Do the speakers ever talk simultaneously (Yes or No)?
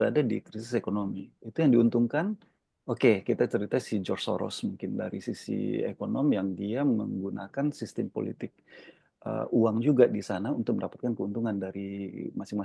No